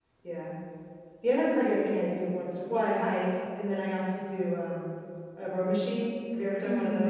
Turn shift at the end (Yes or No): Yes